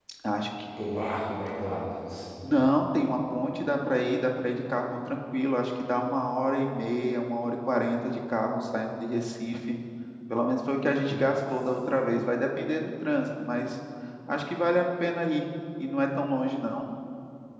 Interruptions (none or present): none